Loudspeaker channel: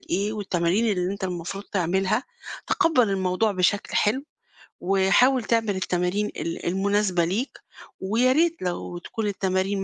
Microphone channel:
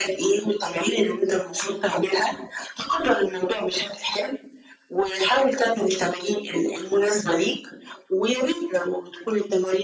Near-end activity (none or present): none